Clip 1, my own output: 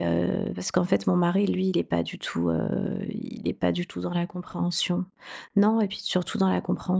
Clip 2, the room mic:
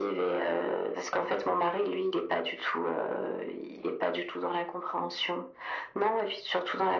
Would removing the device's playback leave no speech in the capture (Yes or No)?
Yes